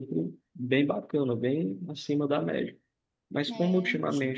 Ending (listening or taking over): listening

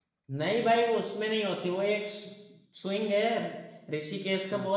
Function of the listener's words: listening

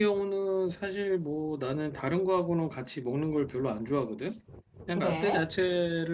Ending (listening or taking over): listening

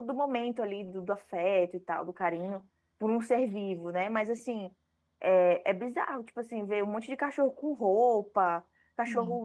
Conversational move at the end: listening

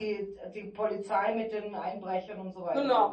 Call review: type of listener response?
taking over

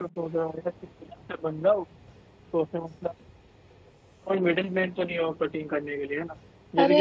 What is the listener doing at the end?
taking over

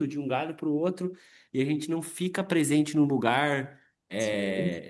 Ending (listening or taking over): listening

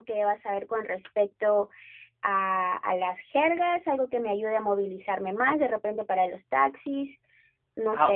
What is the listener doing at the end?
taking over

